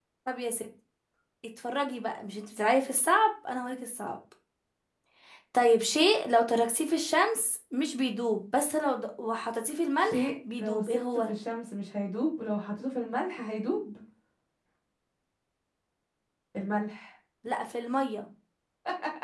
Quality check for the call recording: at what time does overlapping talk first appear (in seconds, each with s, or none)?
10.0 s